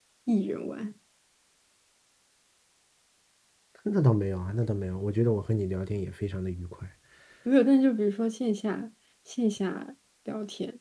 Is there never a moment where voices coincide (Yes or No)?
Yes